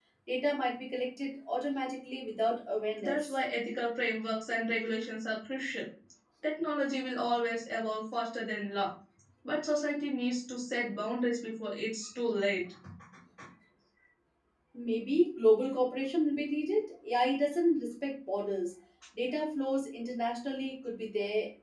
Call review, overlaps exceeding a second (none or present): none